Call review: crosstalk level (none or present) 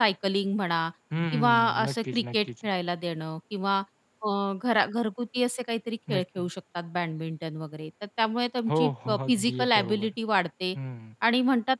present